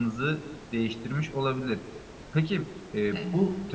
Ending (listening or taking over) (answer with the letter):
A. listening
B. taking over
A